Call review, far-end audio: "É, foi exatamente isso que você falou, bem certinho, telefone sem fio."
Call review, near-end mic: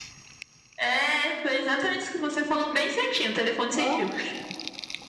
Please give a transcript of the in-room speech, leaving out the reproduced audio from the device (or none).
Ó,